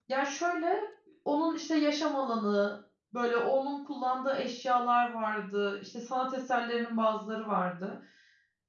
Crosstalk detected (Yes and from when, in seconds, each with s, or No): No